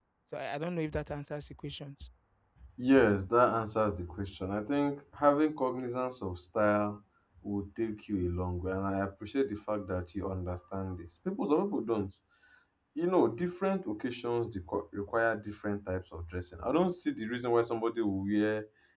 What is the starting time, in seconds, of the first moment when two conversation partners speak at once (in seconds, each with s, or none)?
none